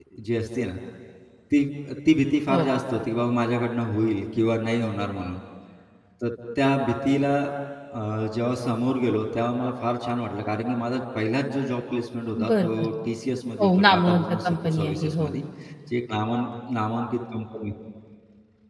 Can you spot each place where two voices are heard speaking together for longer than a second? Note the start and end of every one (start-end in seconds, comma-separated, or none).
13.6-15.4